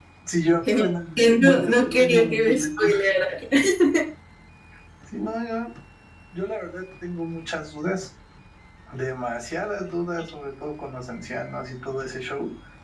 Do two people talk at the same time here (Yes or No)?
Yes